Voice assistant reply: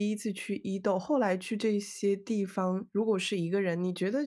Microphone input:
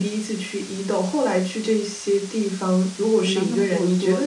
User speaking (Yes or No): Yes